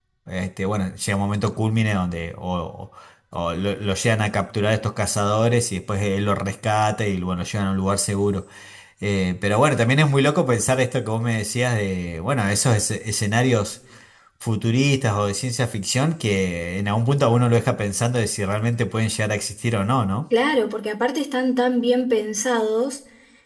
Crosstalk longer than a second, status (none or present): none